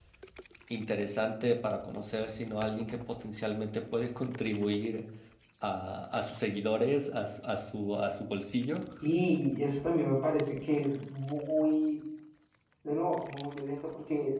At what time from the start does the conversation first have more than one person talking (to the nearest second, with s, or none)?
none